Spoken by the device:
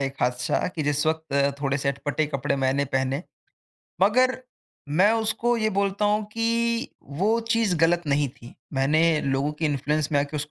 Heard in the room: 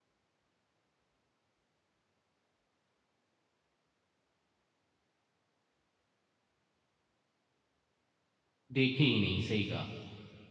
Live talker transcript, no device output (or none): देखे ही नहीं, सही कहा।